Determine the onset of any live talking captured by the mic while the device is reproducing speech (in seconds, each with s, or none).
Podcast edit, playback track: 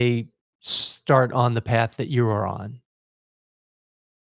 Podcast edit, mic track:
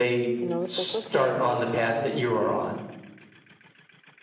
0.4 s